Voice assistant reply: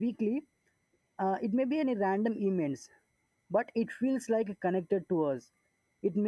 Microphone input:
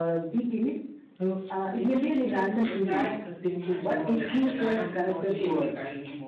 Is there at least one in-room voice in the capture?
Yes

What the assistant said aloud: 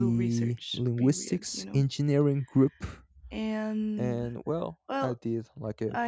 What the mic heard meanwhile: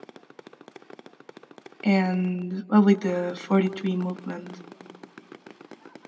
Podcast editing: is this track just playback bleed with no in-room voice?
No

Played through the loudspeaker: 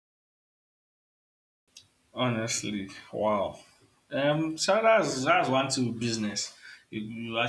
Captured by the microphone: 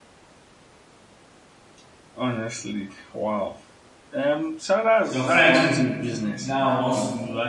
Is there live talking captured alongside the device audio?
Yes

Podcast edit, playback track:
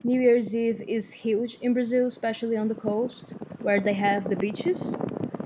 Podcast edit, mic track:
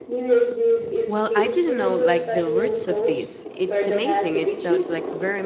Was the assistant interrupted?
Yes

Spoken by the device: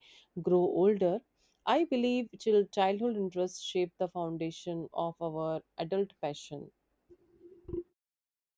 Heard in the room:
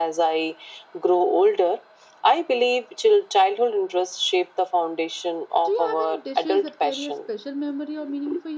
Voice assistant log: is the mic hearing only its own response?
No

